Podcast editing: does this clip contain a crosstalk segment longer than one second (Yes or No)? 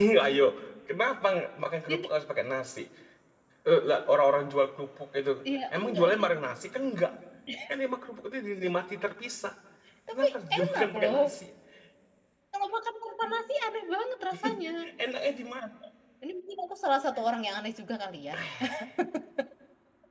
Yes